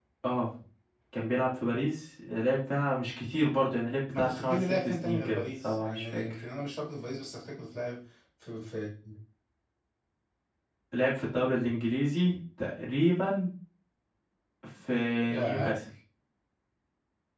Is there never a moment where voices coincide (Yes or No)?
No